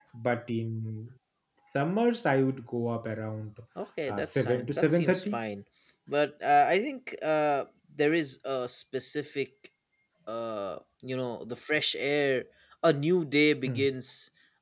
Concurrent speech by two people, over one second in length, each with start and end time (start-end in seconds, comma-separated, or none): 4.1-5.4